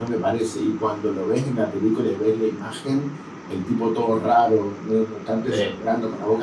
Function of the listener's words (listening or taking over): listening